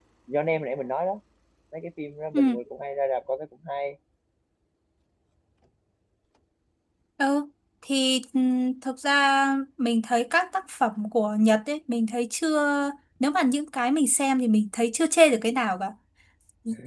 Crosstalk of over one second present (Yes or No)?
No